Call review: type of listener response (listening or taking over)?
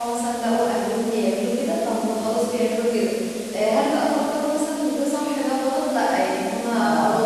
listening